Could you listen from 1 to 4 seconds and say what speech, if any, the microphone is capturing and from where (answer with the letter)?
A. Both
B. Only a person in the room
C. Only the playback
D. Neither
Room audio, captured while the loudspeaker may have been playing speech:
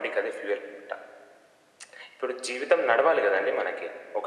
C